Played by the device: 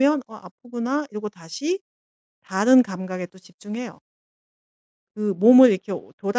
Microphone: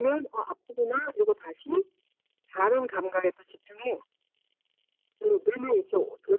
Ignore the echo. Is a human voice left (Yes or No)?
No